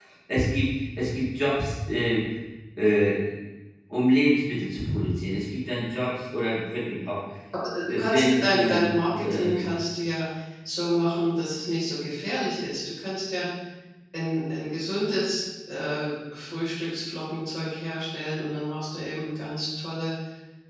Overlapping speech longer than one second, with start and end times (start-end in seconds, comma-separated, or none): 7.9-9.5